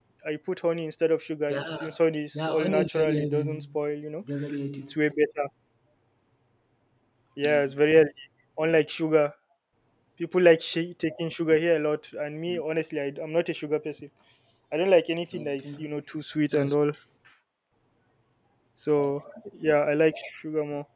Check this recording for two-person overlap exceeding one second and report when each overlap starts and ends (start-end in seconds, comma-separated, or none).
2.3-3.6